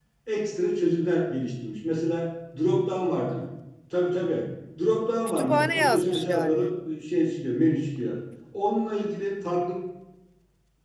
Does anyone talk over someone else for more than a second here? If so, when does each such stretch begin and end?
5.3-6.7

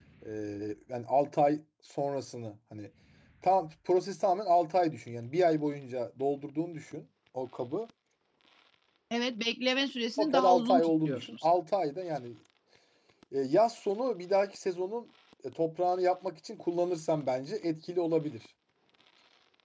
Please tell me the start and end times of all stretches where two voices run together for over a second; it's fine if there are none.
10.2-11.5

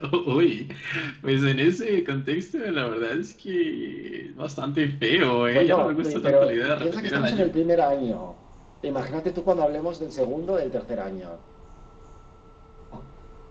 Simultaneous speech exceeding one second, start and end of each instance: 5.5-7.5

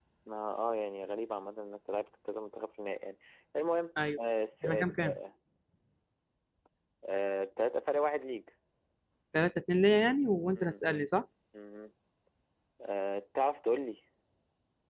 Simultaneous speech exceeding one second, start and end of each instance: none

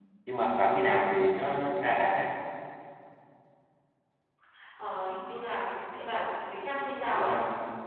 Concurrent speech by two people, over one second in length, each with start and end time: none

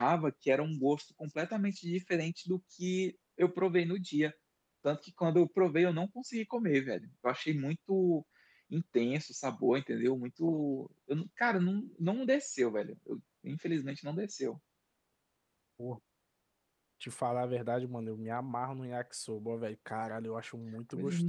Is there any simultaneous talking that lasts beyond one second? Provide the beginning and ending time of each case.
none

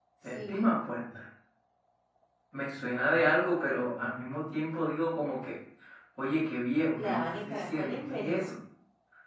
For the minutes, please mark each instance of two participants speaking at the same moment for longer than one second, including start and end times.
7.0-8.6

